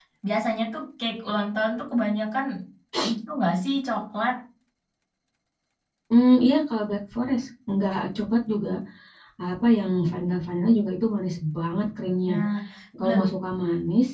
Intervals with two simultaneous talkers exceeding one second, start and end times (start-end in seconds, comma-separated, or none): none